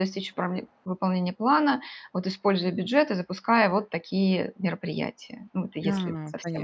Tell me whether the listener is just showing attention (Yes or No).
No